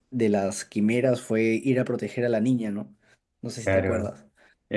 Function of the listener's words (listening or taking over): taking over